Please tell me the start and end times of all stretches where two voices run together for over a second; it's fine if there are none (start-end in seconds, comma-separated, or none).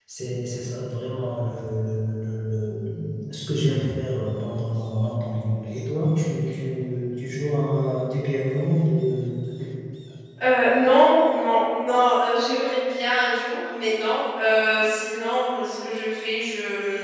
none